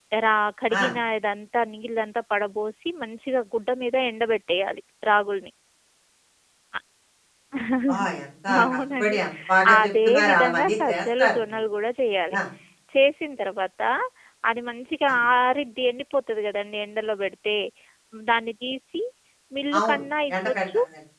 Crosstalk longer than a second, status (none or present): present